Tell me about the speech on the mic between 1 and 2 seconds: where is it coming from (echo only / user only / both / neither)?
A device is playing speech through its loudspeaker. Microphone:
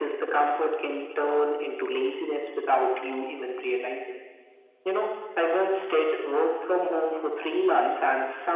echo only